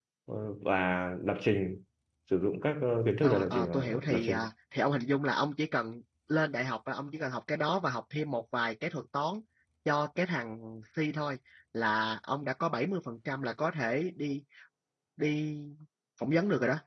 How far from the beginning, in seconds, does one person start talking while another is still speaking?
3.2 s

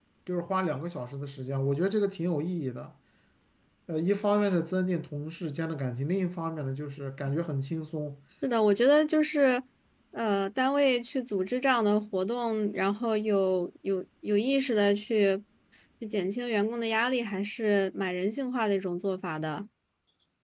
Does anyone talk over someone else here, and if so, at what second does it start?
none

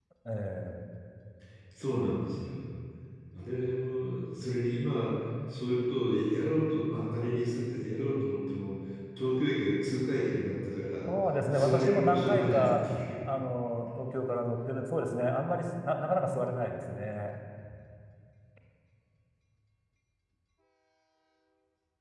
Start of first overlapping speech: 11.5 s

